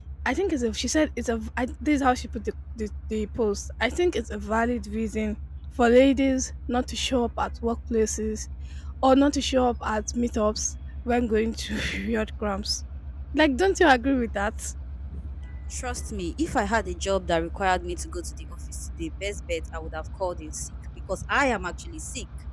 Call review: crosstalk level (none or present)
none